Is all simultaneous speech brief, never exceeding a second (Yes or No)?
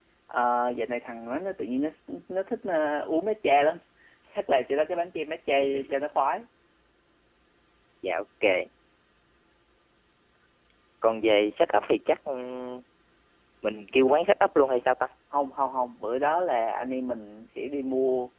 Yes